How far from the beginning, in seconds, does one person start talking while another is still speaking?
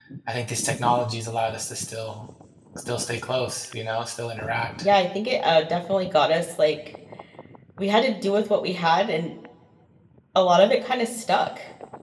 none

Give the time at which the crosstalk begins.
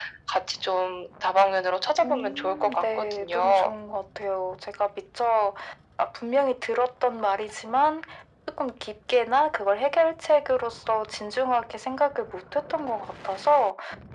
2.0 s

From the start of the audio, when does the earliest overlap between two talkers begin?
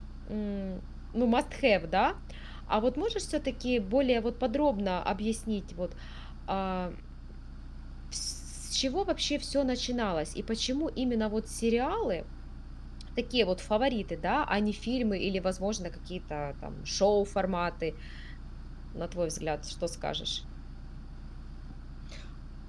none

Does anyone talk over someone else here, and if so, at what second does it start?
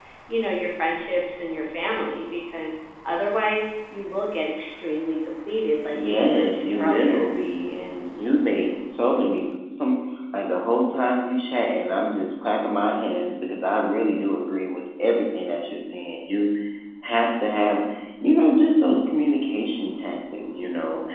5.9 s

